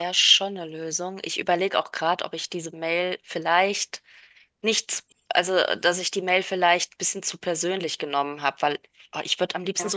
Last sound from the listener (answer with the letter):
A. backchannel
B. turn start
A